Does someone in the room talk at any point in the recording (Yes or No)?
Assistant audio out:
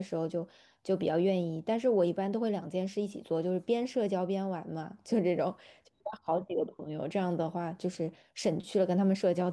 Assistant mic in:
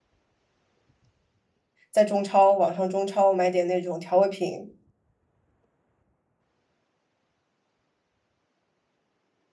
Yes